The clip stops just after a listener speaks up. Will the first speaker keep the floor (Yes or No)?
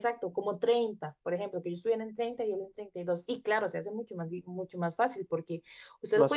Yes